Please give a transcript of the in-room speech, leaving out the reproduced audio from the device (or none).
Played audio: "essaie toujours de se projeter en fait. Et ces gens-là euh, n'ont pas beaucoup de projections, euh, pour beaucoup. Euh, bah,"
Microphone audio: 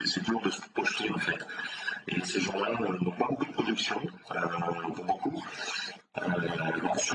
none